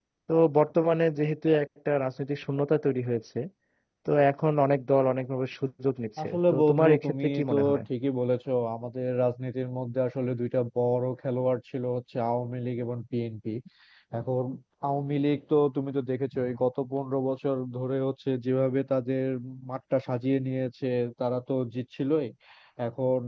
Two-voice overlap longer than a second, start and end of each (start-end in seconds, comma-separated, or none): 6.2-7.8